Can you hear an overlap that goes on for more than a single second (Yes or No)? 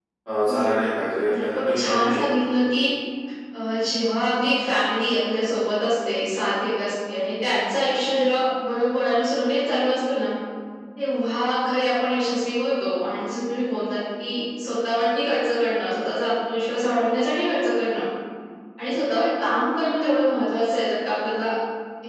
Yes